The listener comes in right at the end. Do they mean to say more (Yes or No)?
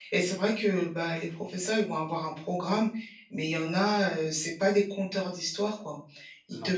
No